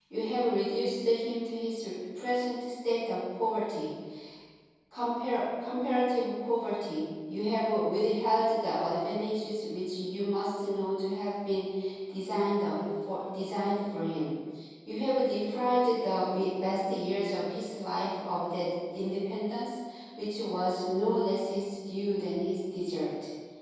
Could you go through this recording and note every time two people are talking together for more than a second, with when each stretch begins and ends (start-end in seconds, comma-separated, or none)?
none